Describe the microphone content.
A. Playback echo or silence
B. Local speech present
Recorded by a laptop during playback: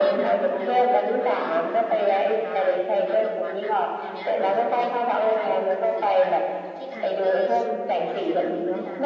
B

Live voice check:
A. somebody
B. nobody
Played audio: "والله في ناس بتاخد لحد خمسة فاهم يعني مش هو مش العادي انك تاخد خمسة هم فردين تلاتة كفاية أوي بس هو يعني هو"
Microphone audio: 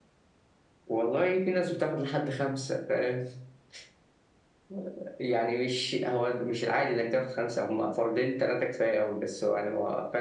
B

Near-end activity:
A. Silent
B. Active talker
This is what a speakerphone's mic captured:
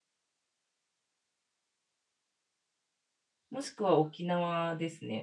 B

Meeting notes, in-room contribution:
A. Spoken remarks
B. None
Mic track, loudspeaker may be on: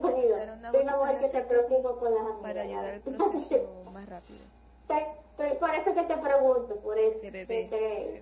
A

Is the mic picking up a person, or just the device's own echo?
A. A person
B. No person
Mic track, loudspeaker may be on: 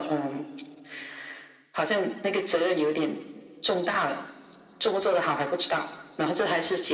B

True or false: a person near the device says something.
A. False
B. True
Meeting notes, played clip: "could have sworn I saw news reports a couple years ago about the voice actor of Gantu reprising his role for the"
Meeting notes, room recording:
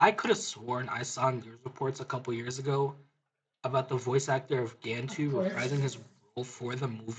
B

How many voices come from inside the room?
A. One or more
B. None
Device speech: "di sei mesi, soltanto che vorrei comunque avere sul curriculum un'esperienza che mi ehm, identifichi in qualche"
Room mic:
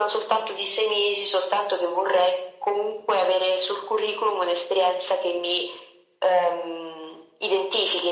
B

